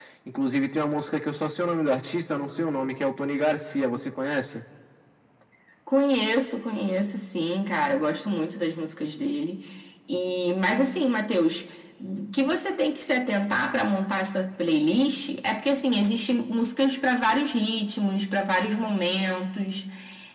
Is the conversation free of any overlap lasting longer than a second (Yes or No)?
Yes